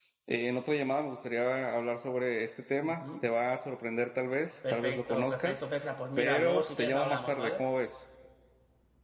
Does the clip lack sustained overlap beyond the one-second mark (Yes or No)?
No